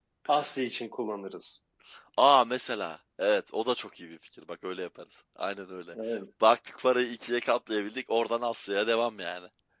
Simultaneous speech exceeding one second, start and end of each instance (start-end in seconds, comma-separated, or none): none